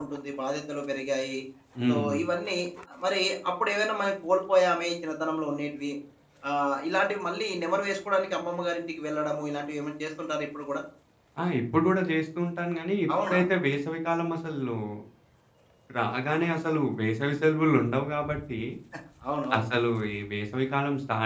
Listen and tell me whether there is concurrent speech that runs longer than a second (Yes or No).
No